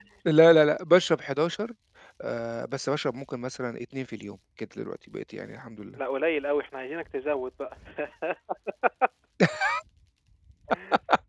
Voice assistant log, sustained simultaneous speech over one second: none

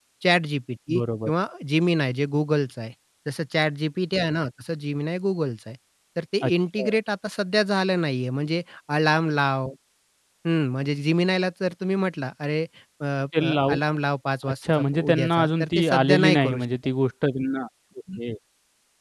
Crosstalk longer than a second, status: present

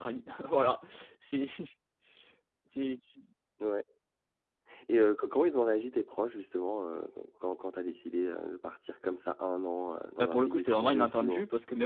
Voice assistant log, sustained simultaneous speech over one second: present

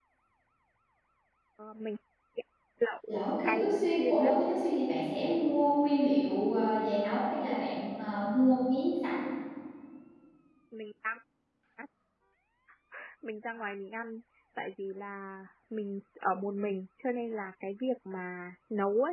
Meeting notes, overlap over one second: present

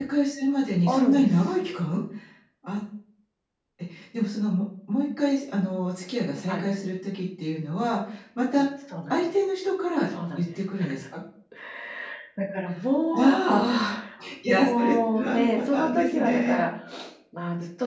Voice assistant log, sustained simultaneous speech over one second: present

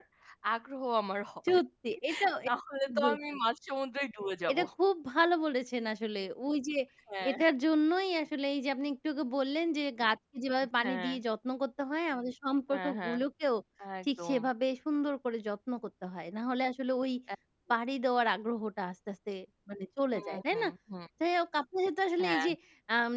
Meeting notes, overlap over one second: none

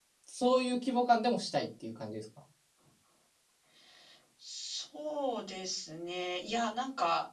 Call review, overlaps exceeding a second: none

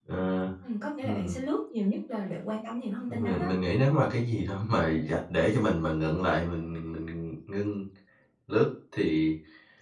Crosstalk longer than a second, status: none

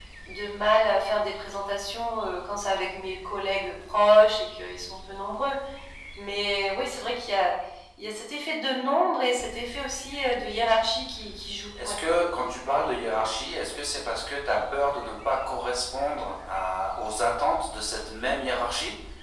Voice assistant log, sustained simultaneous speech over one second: none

